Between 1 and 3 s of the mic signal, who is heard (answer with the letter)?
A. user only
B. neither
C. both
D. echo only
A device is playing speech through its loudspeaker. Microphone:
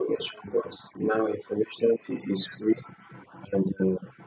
D